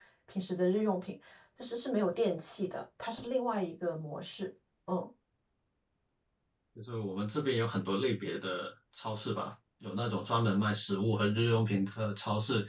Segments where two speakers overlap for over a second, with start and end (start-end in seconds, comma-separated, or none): none